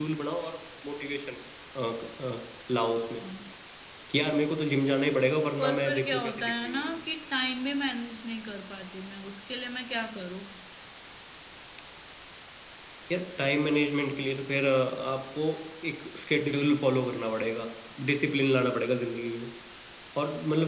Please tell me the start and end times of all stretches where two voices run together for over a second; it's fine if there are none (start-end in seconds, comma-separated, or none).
5.6-6.9